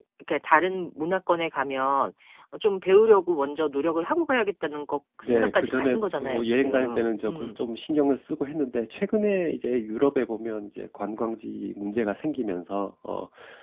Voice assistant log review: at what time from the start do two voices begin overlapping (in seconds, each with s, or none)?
5.2 s